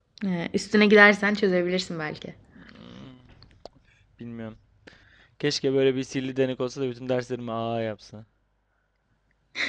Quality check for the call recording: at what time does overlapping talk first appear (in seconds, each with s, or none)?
none